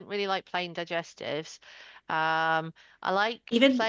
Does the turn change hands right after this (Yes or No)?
No